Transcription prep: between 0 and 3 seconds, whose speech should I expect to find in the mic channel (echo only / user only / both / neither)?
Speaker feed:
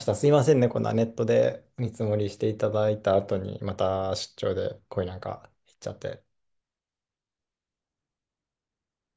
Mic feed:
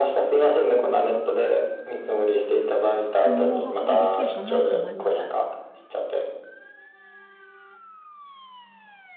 echo only